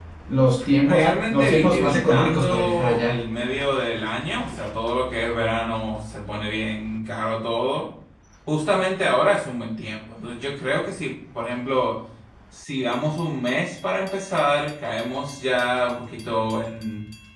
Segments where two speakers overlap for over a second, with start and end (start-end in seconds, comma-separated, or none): 0.8-3.1